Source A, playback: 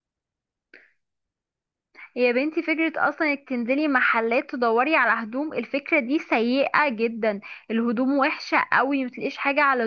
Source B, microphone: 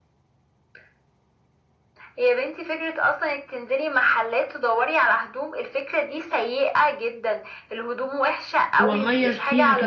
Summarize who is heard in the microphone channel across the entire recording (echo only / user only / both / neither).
both